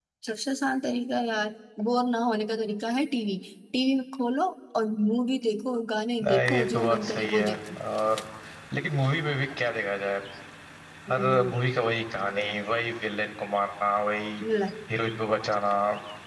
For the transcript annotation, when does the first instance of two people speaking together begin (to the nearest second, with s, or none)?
6 s